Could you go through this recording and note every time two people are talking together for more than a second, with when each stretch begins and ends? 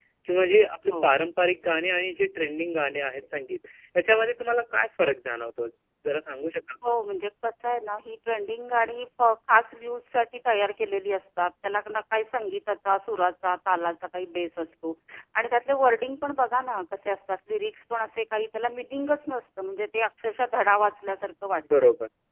none

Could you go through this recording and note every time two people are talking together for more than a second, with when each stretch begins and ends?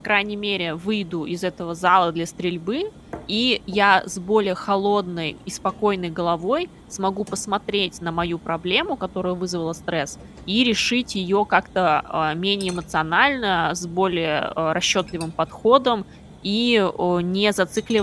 none

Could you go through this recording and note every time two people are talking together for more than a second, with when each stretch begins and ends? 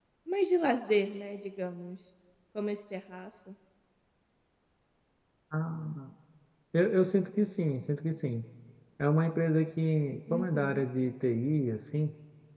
none

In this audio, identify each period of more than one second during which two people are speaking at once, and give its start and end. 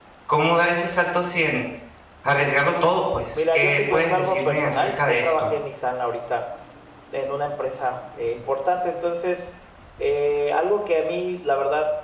3.3-5.5

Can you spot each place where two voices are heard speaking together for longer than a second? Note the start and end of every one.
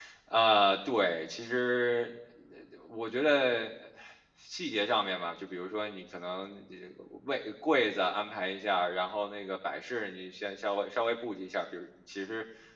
none

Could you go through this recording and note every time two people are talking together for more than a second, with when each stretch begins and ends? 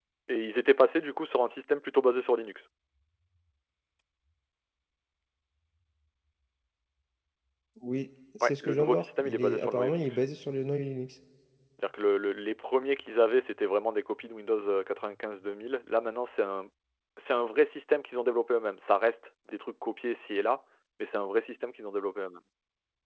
8.4-10.2

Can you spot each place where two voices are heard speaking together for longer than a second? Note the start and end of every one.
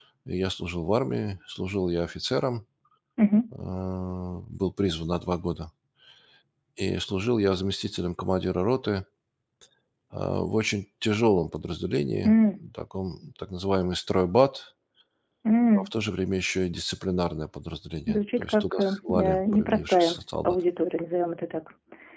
18.1-20.6

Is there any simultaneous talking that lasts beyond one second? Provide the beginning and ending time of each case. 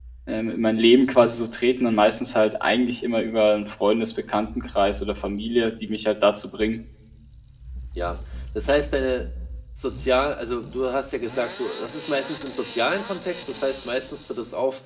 none

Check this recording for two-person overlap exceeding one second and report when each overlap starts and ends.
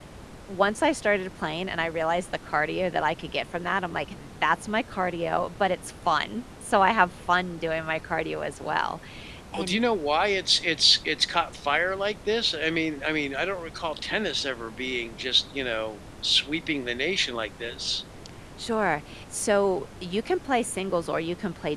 none

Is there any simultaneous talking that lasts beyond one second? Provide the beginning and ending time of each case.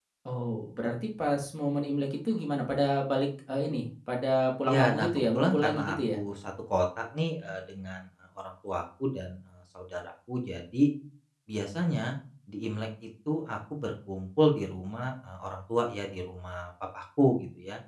4.7-6.2

